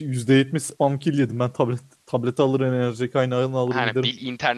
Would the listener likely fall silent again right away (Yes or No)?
No